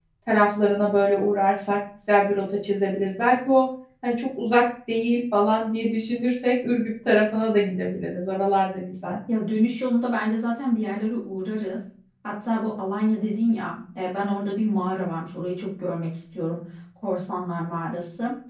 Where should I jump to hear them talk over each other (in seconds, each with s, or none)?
none